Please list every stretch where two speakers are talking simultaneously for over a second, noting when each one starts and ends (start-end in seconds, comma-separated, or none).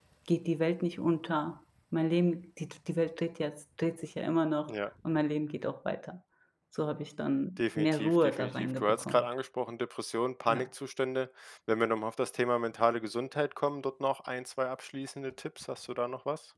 7.8-9.2